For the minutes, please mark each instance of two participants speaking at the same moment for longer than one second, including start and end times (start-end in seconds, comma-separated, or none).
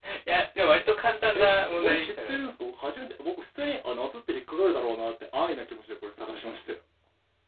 1.4-2.6